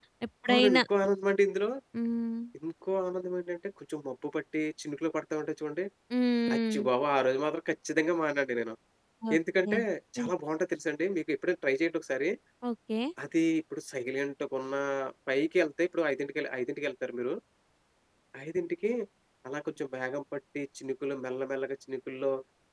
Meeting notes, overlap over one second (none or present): none